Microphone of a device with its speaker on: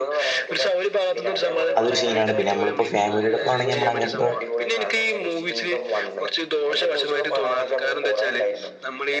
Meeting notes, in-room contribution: present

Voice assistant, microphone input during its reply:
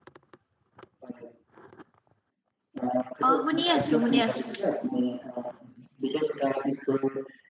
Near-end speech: present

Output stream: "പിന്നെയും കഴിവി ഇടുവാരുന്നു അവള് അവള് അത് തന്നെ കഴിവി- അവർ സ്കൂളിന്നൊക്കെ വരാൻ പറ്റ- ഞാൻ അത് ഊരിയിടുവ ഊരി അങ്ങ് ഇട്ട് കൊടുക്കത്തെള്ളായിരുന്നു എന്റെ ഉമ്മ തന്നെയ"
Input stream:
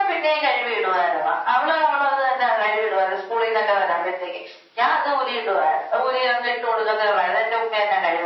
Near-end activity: none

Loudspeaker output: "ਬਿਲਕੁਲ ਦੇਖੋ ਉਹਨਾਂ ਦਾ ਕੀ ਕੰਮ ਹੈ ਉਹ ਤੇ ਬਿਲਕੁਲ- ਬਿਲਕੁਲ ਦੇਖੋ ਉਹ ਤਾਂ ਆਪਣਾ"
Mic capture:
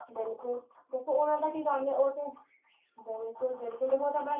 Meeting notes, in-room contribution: none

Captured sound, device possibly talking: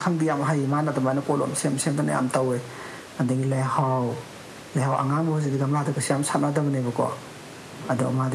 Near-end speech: none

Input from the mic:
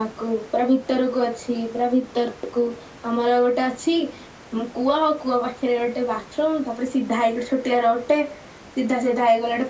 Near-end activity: none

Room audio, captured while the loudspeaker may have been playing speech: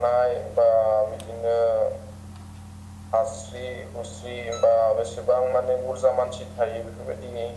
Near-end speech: none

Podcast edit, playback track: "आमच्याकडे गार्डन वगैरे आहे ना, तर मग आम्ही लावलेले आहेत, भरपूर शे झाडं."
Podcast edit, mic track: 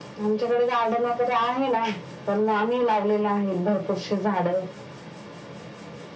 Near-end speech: none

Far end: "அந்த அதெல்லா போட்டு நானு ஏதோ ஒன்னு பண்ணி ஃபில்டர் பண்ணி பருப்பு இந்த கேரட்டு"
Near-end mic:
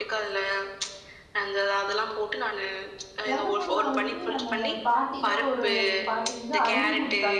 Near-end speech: present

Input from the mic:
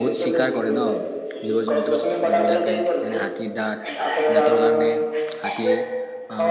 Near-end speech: present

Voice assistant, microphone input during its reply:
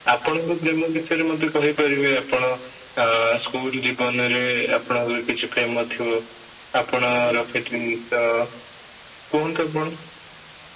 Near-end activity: none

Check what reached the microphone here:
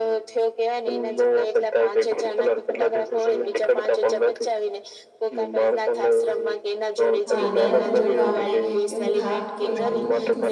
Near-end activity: present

